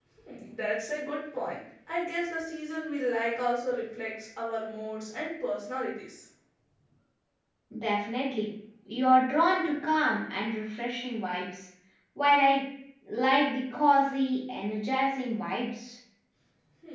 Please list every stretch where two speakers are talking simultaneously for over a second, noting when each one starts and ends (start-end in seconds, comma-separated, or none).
none